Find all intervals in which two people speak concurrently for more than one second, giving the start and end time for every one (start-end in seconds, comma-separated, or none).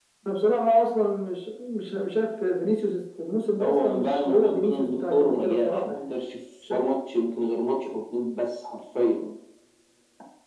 3.6-6.1